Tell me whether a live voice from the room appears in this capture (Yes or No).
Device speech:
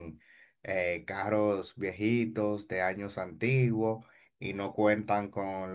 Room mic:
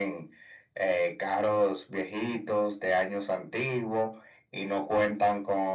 No